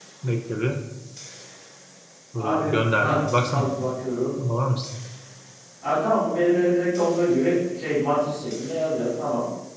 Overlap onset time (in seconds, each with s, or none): 2.4 s